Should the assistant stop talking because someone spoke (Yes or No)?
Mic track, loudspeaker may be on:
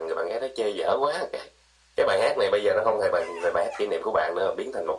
No